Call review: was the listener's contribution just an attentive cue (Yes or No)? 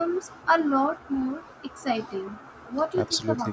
No